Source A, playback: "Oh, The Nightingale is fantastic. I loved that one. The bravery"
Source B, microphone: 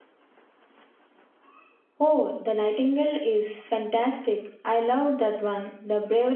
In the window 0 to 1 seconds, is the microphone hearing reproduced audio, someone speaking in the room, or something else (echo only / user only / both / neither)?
neither